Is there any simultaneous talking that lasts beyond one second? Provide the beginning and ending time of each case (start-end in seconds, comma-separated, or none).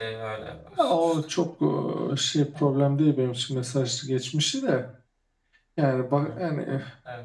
none